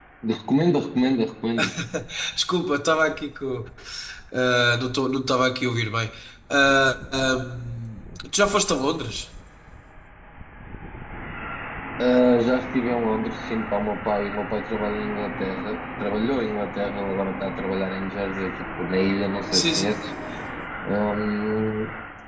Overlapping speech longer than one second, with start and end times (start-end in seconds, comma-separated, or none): none